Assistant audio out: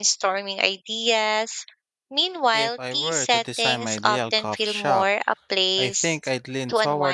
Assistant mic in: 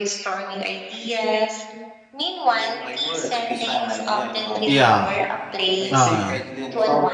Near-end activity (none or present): present